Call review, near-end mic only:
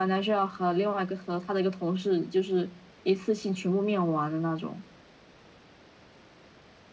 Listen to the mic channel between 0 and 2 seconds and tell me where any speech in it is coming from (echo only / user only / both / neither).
echo only